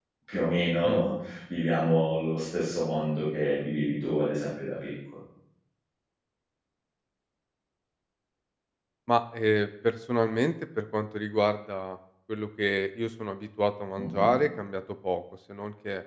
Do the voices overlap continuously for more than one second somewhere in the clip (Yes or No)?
No